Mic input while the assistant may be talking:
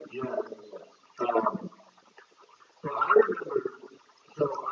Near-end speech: none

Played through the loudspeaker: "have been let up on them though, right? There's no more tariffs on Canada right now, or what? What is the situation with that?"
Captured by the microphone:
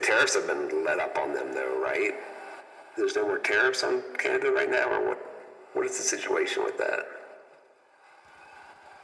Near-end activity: none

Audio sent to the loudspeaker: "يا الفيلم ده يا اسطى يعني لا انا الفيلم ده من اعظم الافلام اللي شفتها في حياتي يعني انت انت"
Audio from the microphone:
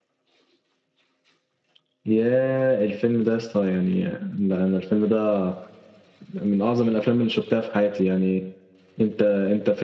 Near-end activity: none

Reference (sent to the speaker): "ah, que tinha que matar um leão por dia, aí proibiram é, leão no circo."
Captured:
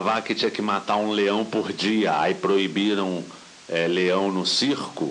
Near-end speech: none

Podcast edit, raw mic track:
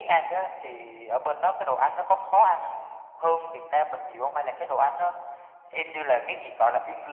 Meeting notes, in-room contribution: none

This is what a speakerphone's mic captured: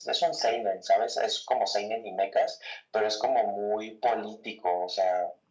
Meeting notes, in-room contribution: none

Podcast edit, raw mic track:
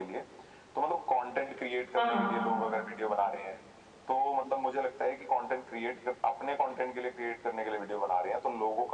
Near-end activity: present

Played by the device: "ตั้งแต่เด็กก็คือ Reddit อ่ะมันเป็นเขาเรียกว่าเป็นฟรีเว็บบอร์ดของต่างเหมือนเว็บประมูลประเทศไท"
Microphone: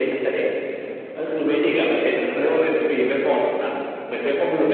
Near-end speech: none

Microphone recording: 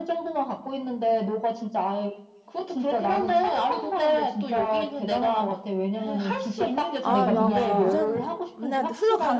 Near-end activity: present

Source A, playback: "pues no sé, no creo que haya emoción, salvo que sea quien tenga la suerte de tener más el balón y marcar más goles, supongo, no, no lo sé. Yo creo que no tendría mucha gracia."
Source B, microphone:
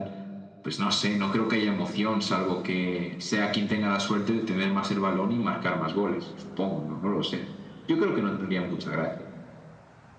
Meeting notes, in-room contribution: none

